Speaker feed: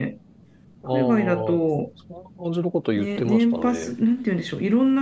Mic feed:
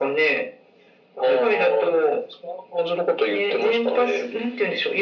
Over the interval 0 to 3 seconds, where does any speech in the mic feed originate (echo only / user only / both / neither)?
echo only